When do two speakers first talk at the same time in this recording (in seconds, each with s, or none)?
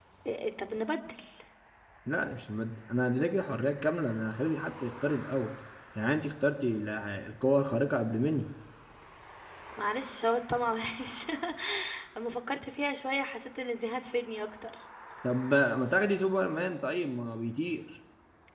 none